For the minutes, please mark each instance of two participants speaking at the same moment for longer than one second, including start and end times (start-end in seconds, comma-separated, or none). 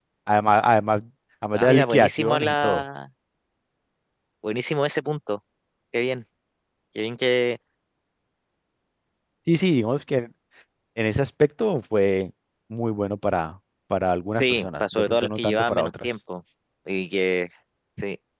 1.5-2.8, 14.3-16.1